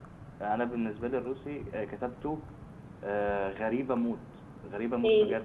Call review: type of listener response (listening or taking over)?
taking over